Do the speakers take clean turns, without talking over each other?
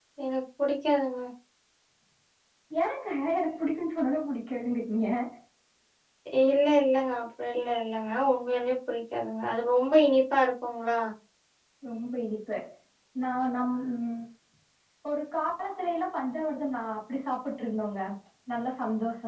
Yes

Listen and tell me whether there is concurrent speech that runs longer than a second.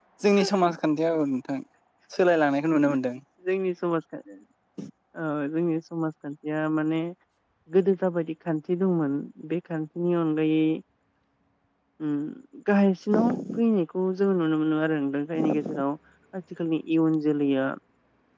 No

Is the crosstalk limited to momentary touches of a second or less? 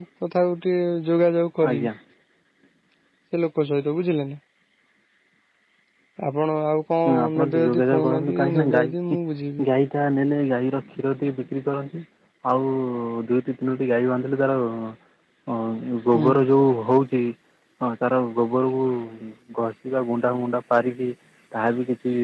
No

